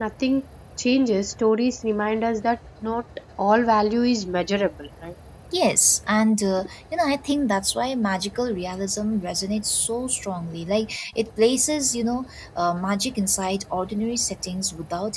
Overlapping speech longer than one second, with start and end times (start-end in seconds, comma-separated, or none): none